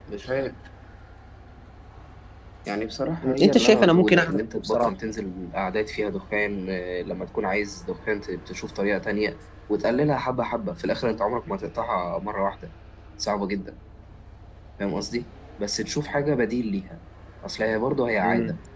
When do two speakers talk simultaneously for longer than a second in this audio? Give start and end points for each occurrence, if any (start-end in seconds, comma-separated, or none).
3.2-4.9